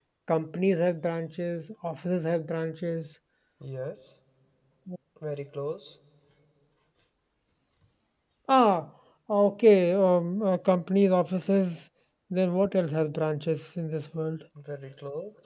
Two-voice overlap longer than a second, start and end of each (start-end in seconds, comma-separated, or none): none